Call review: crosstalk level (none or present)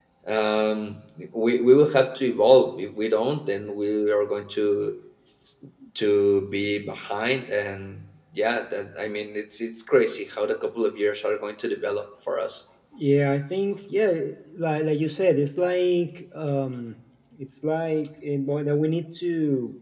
none